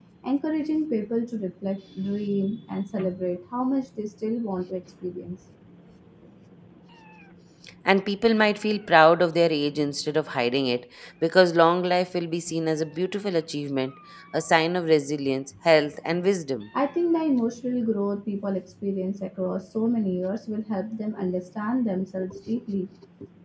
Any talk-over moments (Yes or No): No